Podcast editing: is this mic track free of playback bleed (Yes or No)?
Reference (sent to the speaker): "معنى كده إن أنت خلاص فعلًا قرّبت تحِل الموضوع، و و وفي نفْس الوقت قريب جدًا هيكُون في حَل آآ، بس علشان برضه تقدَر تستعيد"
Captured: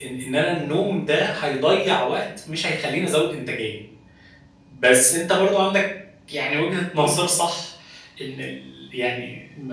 Yes